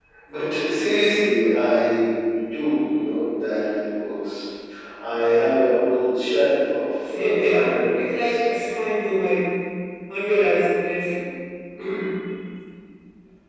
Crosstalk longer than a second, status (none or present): present